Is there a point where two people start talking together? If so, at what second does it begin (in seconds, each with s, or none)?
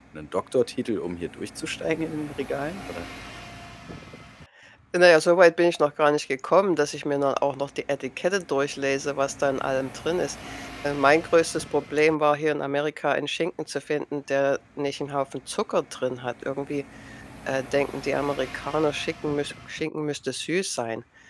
none